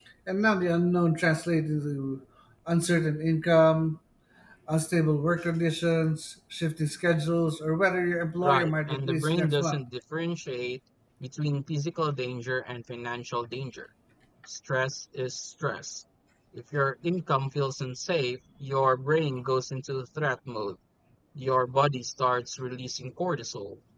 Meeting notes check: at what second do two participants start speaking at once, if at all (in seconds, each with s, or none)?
8.4 s